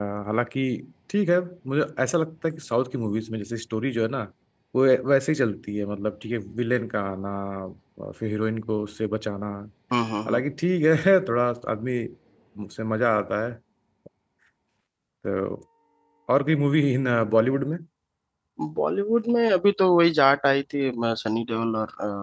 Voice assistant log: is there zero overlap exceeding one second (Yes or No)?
Yes